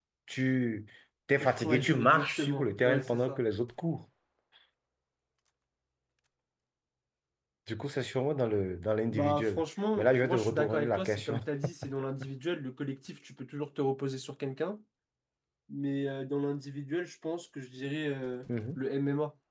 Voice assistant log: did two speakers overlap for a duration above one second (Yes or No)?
Yes